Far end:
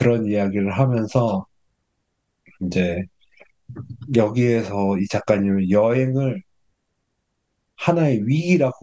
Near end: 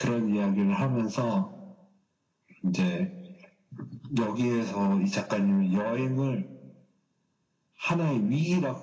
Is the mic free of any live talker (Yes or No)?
Yes